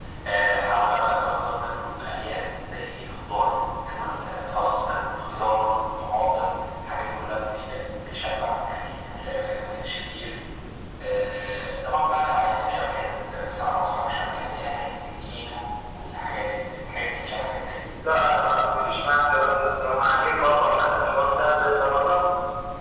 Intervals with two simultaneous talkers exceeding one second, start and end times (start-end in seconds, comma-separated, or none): none